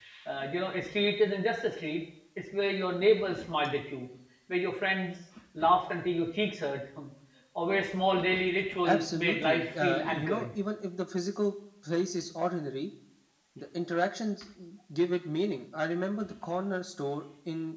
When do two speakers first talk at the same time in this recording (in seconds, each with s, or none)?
8.8 s